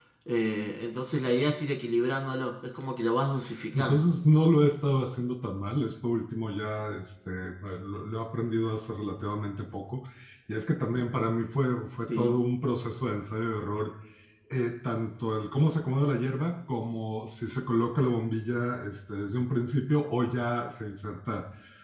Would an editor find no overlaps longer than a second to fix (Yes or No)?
Yes